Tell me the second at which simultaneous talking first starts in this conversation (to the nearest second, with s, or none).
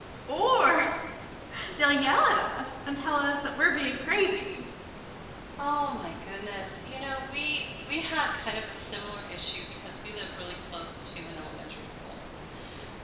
none